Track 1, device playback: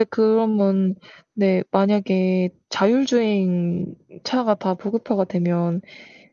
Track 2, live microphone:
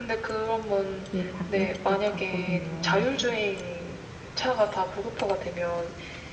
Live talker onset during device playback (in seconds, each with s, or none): 1.1 s